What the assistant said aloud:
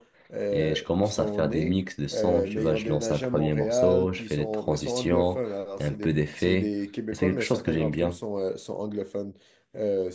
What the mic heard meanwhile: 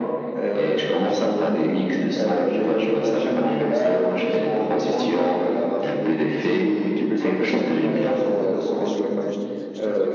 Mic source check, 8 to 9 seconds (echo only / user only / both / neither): both